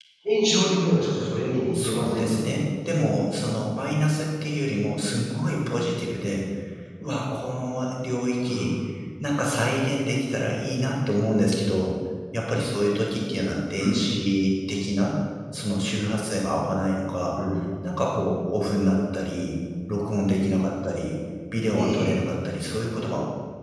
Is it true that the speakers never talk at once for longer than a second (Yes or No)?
Yes